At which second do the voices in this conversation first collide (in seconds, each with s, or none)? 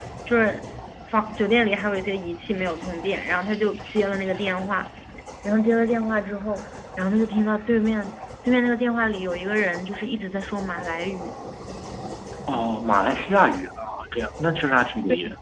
none